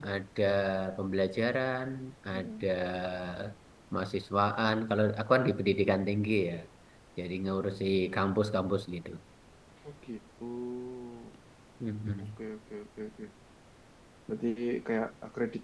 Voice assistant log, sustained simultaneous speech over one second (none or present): none